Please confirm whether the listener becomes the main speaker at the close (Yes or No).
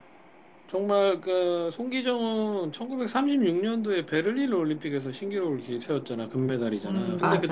No